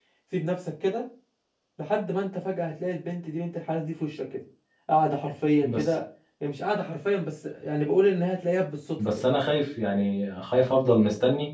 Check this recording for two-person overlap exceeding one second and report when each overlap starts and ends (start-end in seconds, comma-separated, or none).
none